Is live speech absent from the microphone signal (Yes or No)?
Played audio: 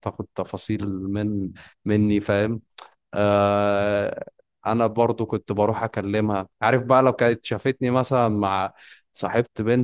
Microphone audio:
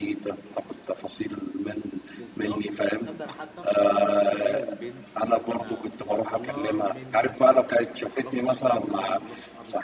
No